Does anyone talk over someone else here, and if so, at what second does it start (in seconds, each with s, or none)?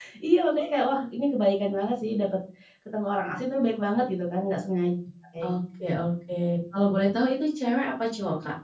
none